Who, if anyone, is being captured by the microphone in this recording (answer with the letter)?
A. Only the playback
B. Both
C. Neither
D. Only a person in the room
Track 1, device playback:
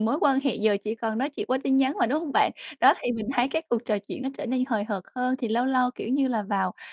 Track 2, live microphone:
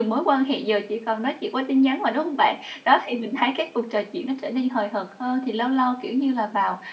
A